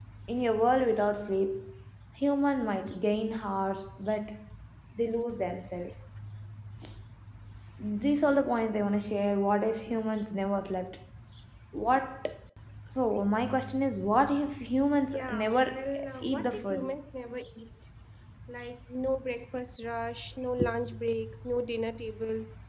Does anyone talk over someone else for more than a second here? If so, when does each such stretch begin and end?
15.1-16.9

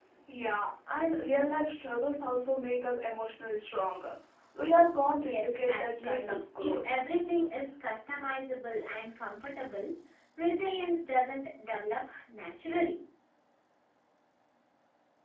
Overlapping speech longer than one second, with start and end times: 5.2-7.0

